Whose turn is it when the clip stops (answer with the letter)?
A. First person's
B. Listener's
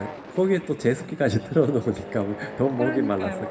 B